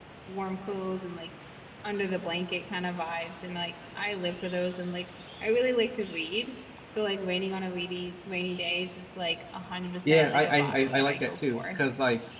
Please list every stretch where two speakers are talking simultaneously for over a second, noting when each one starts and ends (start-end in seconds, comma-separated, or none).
10.1-11.8